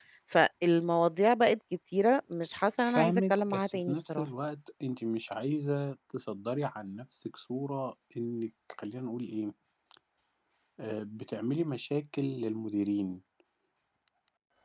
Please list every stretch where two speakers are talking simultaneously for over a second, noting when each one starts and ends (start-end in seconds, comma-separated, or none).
2.9-4.3